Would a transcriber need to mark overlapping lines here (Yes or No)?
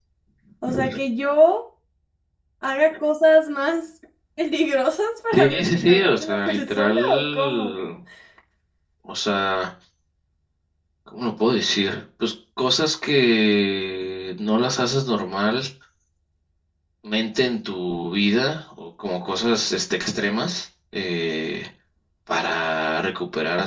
Yes